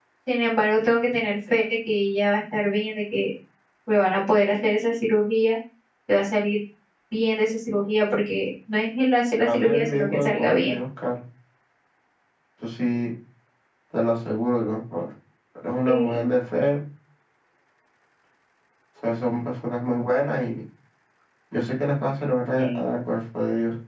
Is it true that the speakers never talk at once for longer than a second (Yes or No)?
No